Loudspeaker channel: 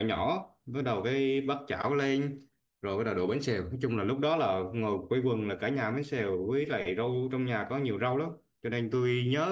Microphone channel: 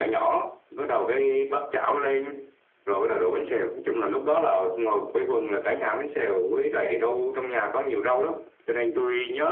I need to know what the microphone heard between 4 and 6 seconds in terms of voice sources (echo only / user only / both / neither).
echo only